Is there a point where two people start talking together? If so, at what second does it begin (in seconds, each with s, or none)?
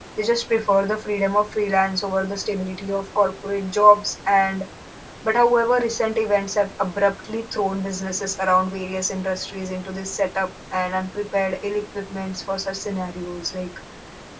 none